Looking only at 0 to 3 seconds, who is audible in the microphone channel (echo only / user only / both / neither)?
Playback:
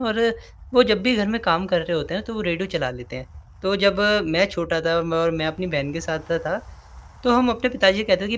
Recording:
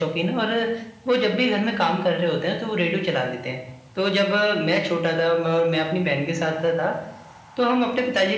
echo only